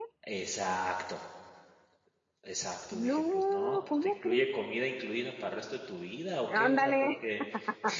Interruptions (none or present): present